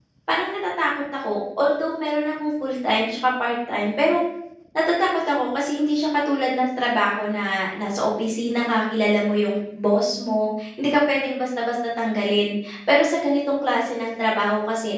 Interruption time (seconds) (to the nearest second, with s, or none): none